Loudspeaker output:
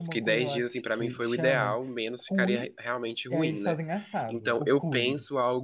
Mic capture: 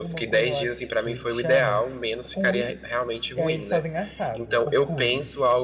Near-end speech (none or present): none